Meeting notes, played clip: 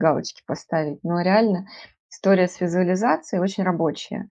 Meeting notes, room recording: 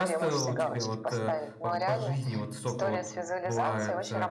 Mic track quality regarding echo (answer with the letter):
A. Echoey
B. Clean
A